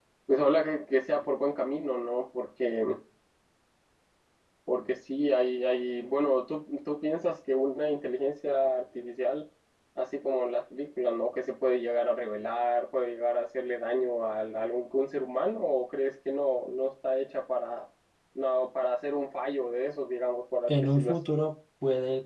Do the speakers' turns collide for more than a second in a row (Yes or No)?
No